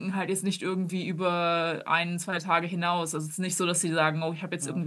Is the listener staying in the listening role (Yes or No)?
Yes